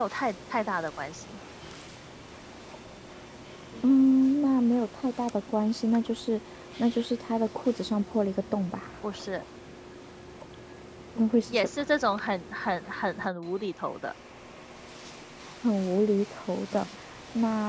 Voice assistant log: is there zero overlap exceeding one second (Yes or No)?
Yes